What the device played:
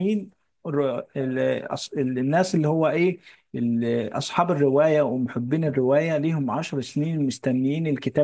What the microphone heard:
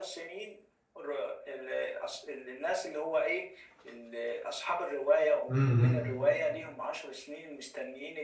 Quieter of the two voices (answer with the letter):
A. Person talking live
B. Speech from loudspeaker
B